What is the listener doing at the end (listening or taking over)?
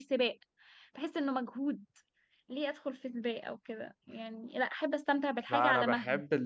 taking over